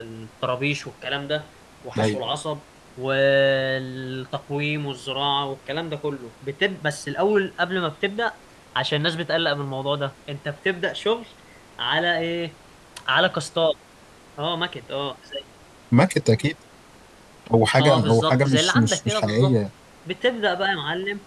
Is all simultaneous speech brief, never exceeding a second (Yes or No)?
No